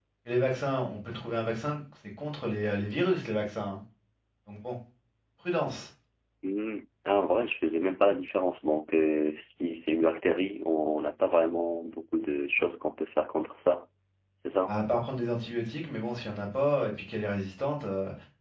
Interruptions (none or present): none